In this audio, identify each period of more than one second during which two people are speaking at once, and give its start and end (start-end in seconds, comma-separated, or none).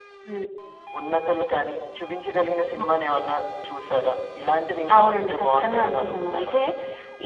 4.9-6.6